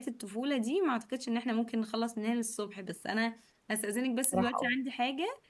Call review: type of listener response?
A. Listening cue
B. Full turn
A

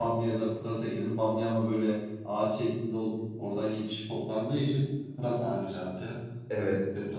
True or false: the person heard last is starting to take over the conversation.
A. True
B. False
A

